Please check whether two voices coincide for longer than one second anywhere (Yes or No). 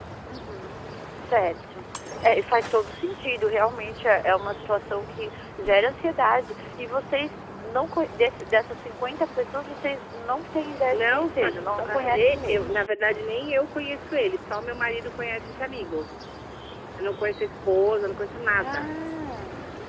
Yes